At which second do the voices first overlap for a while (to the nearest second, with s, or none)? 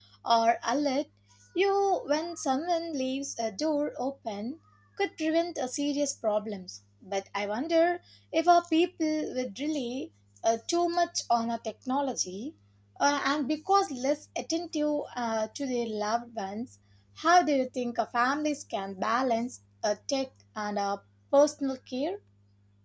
none